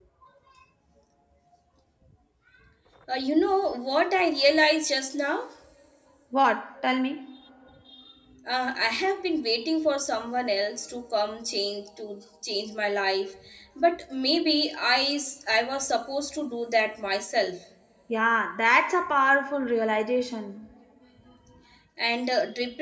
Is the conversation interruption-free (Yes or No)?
Yes